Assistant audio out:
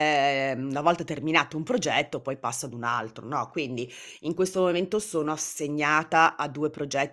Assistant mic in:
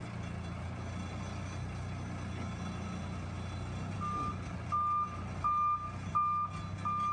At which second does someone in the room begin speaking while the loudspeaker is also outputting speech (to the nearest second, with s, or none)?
none